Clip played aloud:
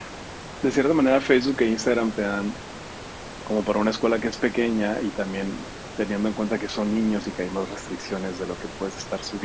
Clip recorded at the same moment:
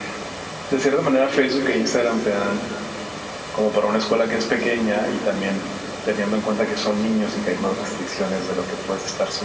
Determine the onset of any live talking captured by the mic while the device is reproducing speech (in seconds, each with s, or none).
none